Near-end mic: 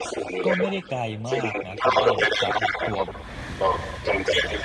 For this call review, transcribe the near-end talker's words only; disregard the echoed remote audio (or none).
ก็ไม่ได้ไกลมากนะคุณต้นจากตัว